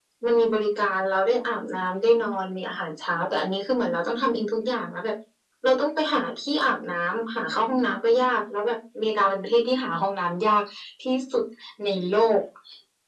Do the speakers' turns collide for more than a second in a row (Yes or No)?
No